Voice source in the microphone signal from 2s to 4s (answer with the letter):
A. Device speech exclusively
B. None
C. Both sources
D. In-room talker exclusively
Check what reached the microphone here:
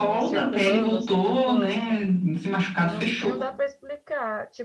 C